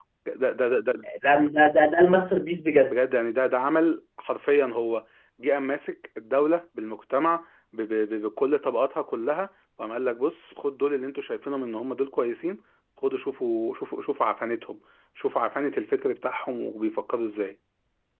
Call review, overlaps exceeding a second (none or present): none